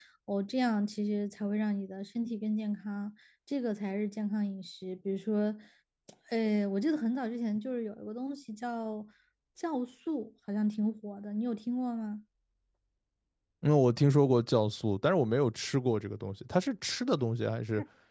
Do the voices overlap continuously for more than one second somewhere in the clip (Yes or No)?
No